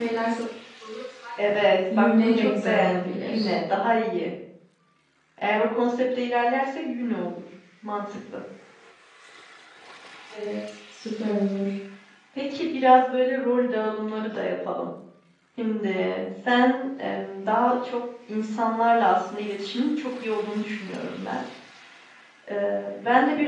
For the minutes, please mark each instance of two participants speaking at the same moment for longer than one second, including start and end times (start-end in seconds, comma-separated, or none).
2.0-3.5